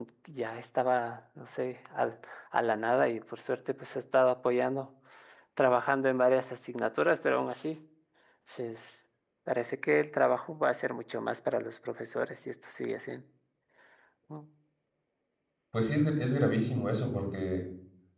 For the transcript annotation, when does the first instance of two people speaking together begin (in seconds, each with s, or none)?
none